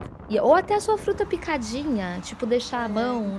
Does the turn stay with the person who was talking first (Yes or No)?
Yes